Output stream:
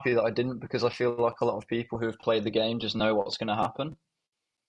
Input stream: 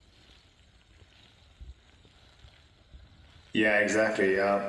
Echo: none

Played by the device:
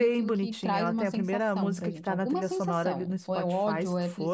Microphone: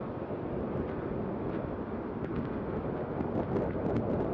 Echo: none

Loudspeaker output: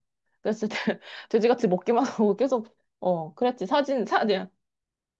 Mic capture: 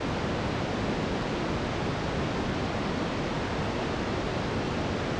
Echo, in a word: none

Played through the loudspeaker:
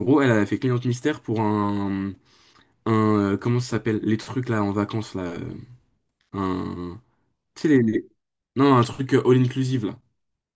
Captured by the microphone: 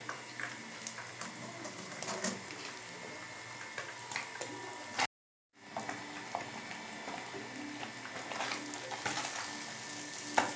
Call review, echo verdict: none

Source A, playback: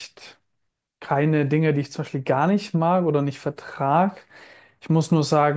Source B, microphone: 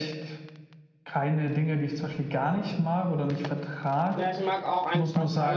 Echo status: present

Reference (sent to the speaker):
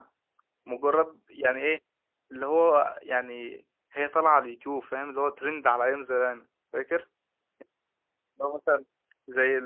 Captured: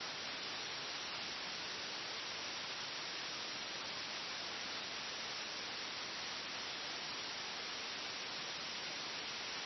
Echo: none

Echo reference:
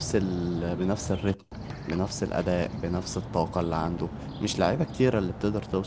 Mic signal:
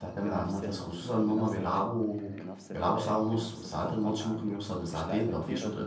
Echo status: present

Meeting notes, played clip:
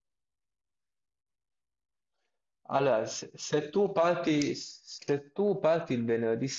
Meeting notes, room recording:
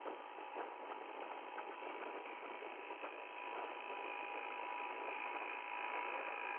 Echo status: none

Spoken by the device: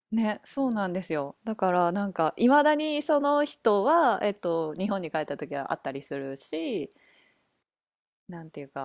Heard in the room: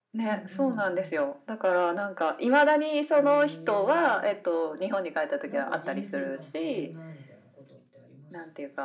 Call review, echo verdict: present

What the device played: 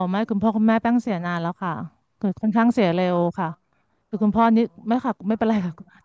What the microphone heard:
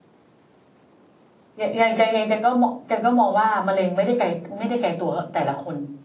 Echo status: none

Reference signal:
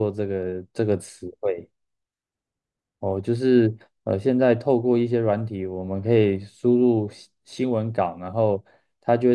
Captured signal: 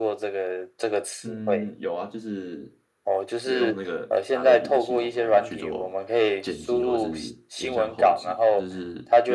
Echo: present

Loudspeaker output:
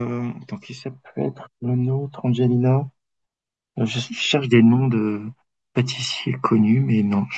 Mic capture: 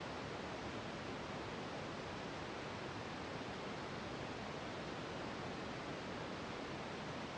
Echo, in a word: none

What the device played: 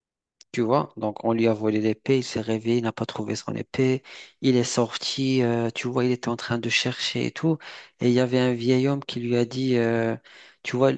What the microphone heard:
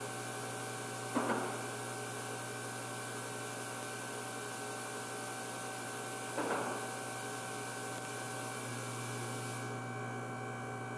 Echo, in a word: none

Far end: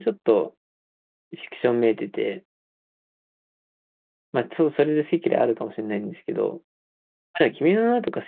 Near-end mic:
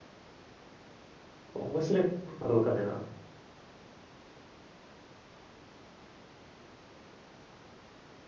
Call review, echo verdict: none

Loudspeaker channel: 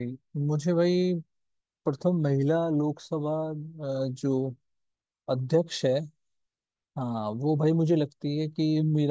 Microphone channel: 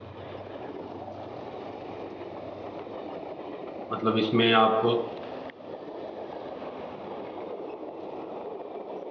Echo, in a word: none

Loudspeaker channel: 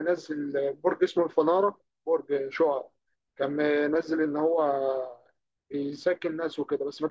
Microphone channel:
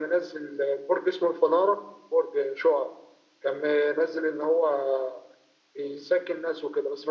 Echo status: present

